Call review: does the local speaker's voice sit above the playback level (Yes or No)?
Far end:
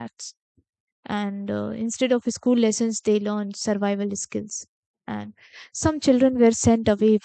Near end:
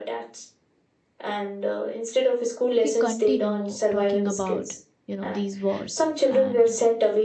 No